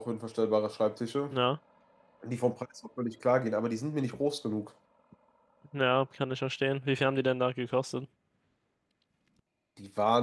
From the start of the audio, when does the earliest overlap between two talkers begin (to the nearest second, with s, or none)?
none